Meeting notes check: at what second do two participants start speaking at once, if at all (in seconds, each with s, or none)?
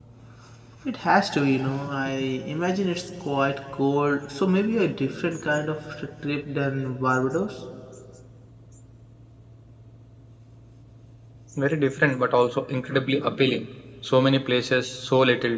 none